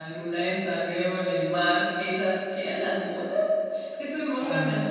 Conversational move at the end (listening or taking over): listening